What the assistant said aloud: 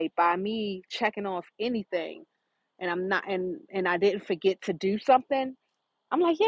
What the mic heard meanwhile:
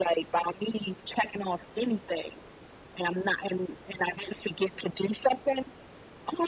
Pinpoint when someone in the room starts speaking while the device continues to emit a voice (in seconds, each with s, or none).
none